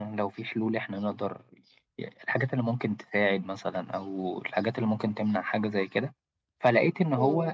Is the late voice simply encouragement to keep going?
Yes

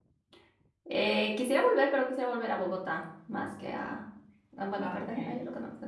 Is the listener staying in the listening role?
Yes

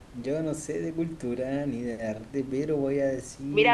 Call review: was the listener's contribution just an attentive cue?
No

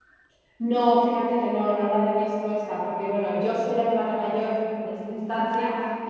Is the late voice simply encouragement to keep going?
Yes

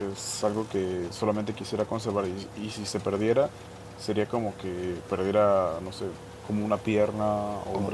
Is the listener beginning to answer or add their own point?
No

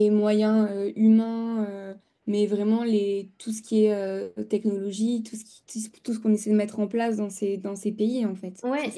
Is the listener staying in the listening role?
No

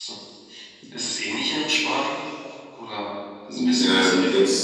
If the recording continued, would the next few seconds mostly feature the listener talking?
Yes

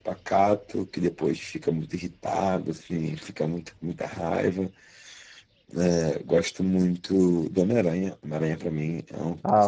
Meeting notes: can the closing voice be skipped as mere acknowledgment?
No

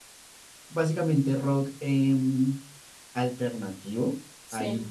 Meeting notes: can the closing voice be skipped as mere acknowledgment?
Yes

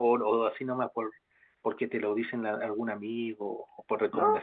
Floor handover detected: Yes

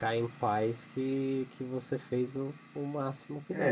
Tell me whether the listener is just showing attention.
No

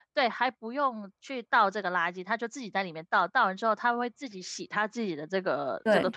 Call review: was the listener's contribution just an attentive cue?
No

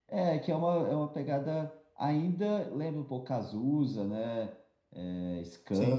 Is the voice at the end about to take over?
No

